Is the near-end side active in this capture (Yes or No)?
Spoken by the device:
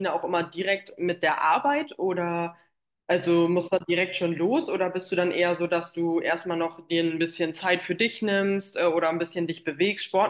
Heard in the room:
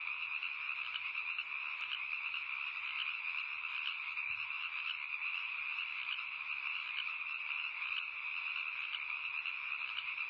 No